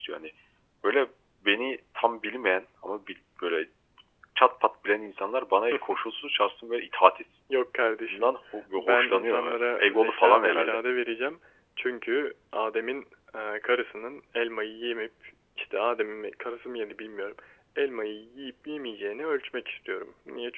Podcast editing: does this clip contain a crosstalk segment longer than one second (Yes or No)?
Yes